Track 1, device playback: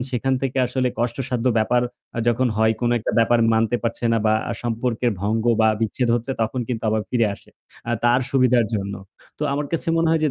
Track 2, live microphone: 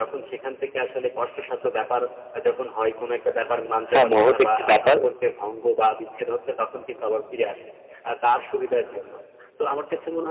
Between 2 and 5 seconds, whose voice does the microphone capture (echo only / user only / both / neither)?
both